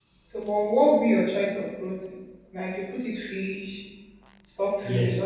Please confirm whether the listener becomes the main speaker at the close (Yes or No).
Yes